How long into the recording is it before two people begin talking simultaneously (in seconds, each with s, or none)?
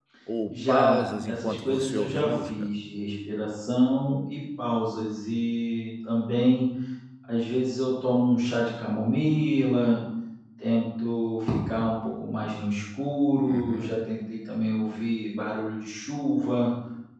0.5 s